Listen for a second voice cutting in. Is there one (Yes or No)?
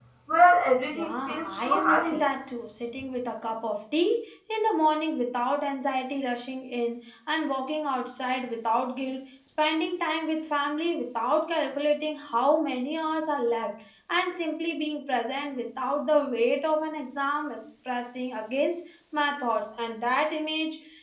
Yes